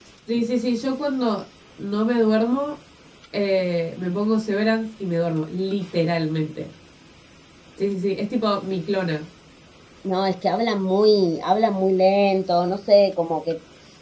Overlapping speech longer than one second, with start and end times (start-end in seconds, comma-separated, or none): none